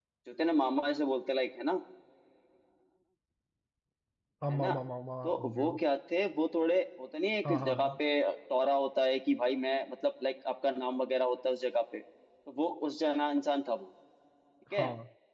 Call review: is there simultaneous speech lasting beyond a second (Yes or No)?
No